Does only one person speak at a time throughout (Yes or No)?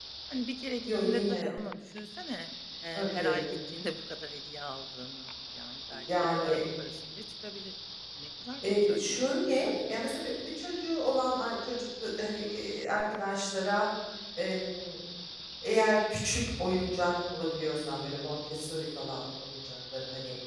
No